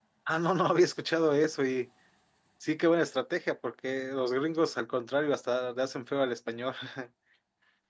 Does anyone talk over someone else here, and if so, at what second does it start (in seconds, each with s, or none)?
none